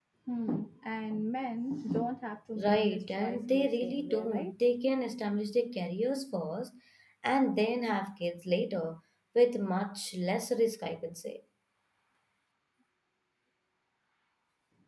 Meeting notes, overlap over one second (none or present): present